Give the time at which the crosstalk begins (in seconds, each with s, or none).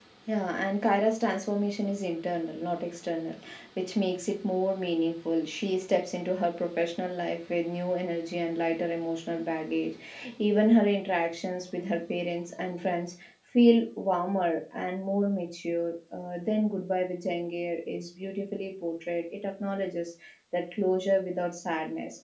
none